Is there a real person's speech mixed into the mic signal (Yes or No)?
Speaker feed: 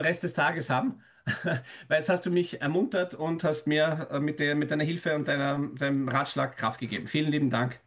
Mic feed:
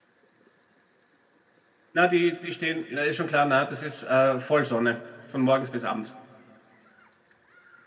Yes